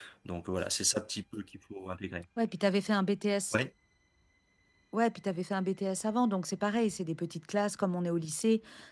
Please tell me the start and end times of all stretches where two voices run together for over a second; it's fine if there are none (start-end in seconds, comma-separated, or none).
none